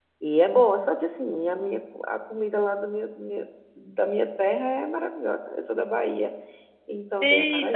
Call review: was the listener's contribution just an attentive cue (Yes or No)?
No